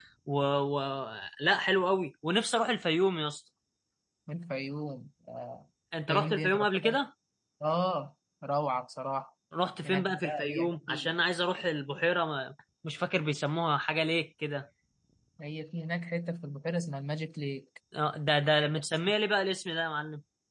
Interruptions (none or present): present